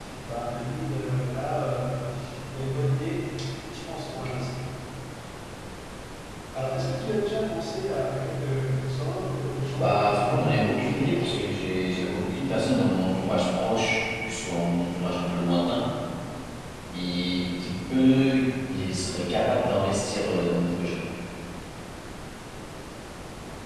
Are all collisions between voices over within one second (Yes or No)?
No